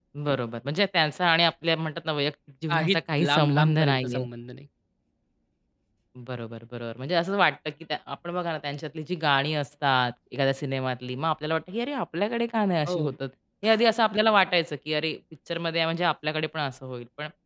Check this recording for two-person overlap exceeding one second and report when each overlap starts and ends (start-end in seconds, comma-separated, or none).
2.7-4.2